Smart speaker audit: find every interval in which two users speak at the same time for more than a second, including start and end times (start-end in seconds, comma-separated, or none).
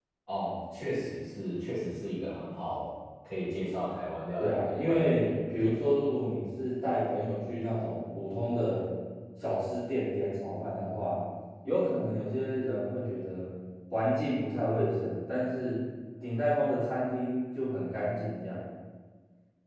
4.4-6.0